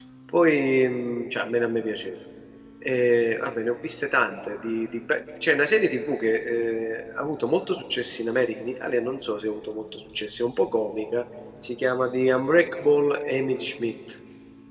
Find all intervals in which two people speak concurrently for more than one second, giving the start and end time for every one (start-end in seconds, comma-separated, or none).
none